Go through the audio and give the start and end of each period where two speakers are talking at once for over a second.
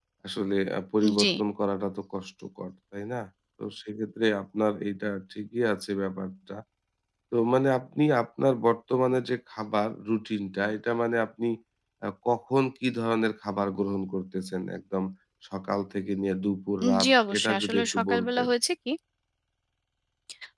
17.0-18.5

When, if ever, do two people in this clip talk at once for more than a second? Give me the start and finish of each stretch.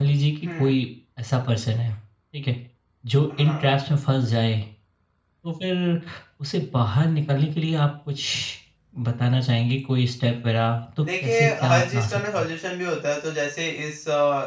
11.0-12.5

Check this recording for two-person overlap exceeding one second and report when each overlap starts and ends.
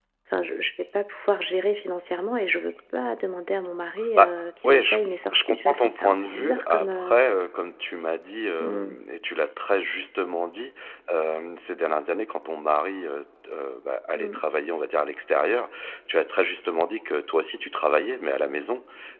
5.3-7.2

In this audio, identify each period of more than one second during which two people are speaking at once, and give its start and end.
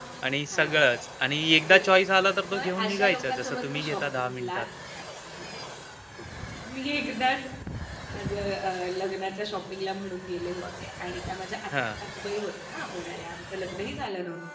2.5-4.6

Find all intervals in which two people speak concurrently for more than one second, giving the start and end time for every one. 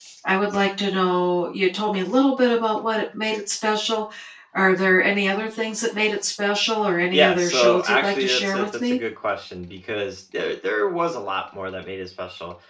7.1-9.0

